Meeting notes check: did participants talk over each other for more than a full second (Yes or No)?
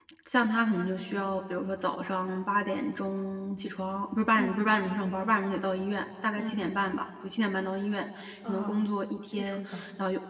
No